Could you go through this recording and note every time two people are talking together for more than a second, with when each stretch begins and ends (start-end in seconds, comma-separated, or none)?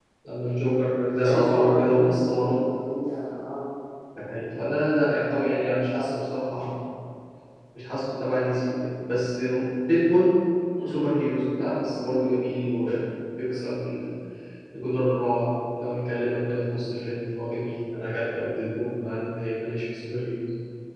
1.2-2.8